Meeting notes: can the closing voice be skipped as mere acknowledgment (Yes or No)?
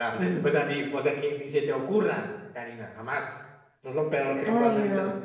Yes